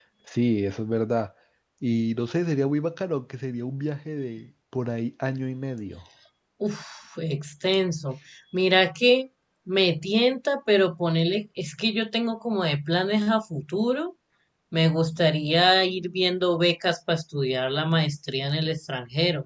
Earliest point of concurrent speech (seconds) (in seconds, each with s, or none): none